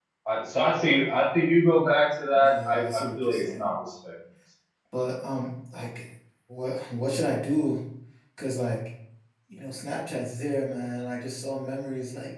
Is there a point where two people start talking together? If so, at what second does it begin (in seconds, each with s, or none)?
2.3 s